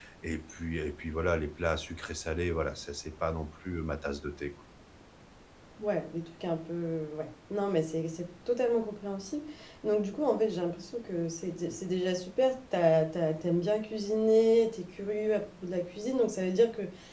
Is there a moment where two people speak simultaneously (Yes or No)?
No